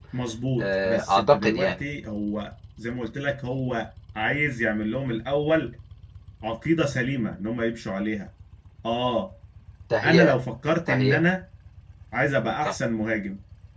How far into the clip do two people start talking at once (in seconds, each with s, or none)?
0.6 s